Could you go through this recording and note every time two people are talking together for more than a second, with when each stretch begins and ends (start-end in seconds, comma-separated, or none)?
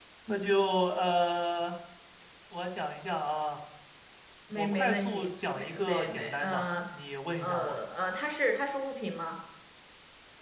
4.5-6.6